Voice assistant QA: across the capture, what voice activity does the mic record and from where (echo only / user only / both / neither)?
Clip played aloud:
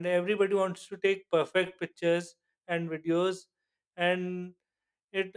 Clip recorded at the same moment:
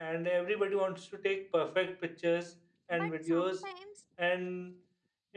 both